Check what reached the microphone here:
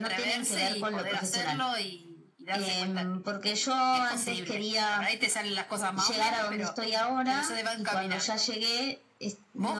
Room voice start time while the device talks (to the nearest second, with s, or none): none